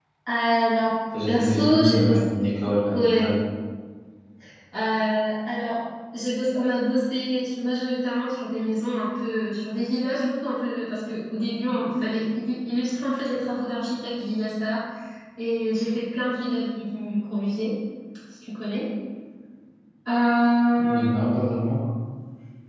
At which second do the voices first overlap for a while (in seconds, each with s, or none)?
1.3 s